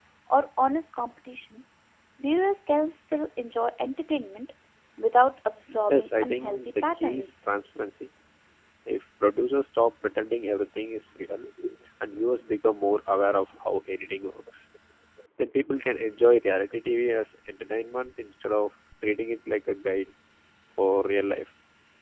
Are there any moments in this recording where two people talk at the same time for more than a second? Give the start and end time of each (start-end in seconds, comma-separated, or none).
5.9-7.3